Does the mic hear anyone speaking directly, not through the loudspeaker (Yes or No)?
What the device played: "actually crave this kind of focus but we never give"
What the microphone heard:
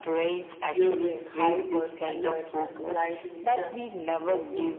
Yes